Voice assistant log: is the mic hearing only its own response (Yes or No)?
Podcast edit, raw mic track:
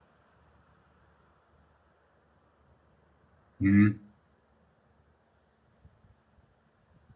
No